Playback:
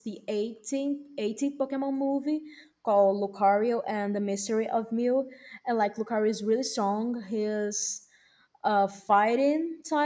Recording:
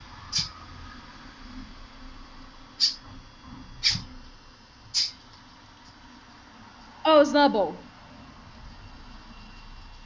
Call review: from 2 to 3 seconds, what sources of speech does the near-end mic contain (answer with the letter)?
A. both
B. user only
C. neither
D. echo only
C